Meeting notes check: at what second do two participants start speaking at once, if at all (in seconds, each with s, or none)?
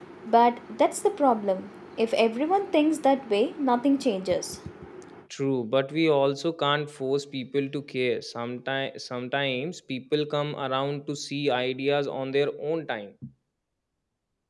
none